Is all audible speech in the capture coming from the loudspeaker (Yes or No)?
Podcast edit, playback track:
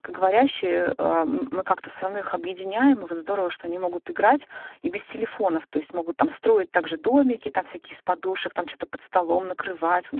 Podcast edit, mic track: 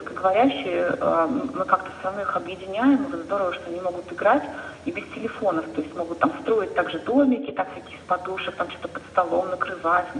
Yes